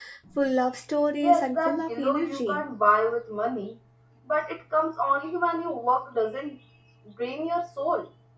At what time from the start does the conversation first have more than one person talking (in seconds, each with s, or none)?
1.2 s